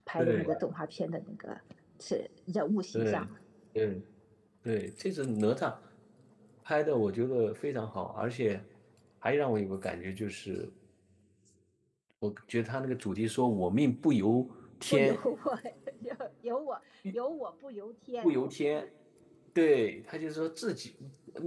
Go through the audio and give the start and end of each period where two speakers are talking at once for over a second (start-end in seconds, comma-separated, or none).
none